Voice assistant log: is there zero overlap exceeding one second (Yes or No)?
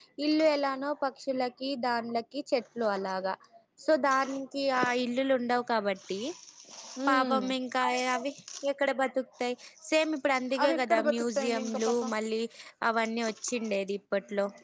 No